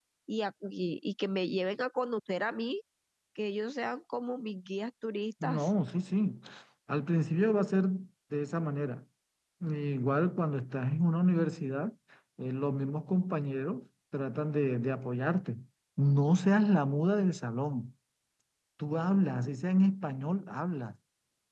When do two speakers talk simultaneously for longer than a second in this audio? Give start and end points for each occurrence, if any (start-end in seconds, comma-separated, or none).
none